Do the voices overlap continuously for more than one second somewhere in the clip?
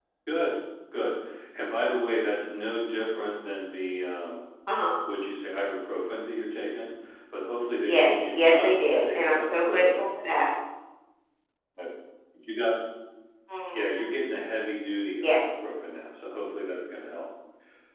Yes, from 7.8 s

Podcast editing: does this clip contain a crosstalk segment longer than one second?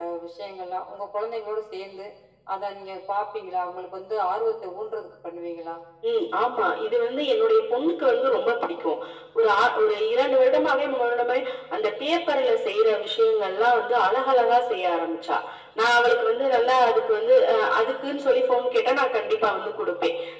No

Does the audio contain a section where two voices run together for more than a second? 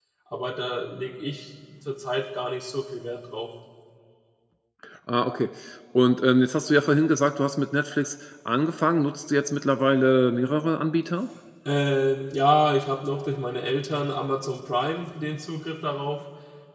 No

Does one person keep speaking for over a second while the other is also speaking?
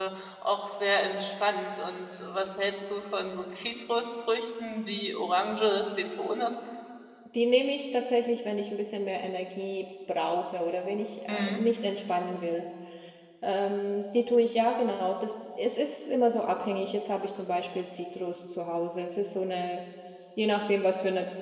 No

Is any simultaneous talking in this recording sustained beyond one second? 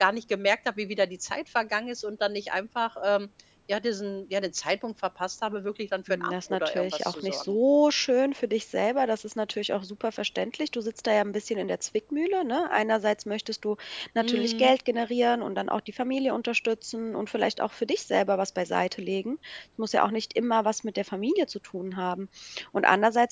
Yes, from 6.1 s

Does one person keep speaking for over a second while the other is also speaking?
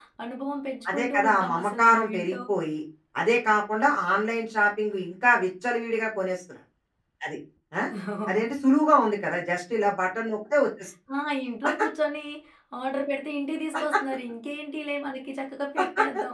Yes, from 0.9 s

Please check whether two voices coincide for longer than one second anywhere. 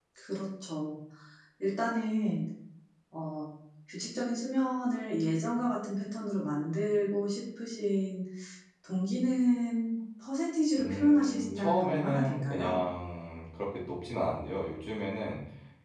Yes, from 10.8 s

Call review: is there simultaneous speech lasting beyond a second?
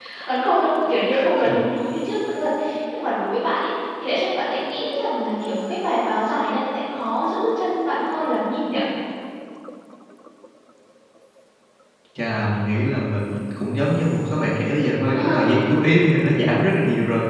No

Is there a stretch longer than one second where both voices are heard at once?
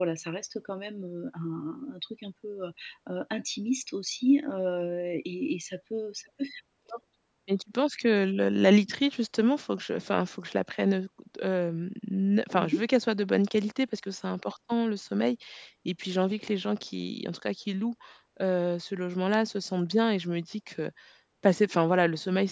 No

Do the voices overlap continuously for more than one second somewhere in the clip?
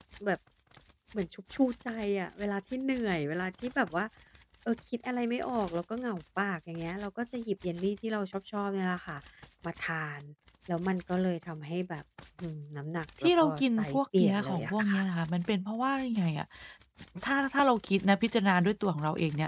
Yes, from 13.2 s

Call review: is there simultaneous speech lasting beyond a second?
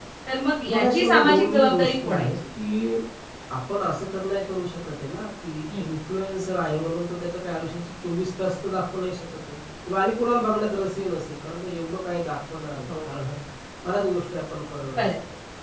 Yes, from 0.7 s

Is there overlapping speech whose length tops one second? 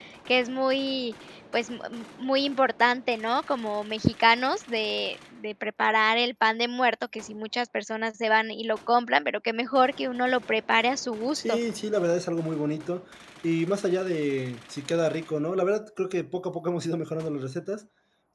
No

